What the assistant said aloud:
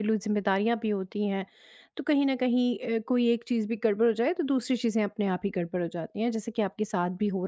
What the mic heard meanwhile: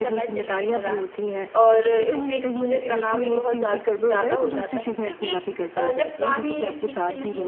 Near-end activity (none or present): present